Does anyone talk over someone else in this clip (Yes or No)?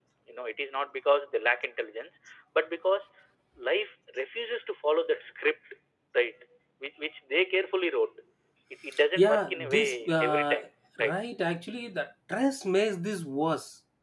Yes